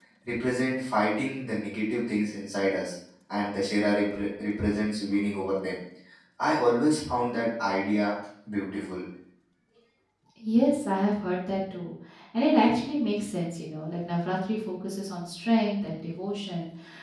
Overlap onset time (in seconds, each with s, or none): none